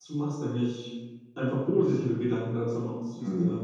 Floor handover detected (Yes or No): Yes